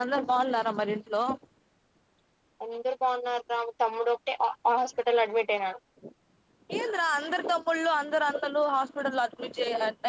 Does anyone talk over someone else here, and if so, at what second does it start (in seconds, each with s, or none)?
none